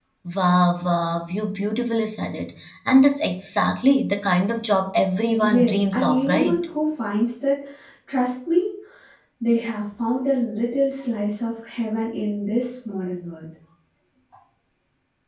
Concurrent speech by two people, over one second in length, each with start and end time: 5.4-6.7

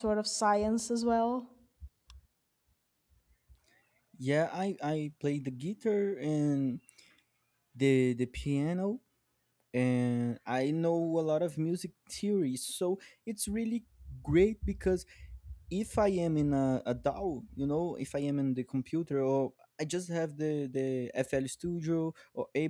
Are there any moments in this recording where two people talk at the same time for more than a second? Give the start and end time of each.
none

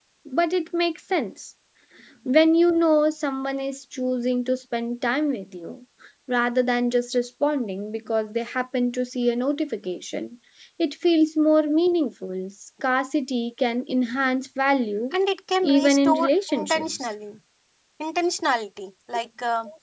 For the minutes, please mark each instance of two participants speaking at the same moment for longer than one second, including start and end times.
15.6-16.9

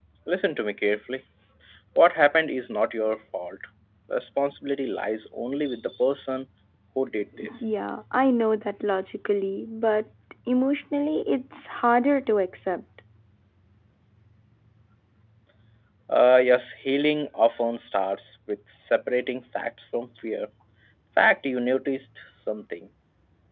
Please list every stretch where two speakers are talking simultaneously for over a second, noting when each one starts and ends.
none

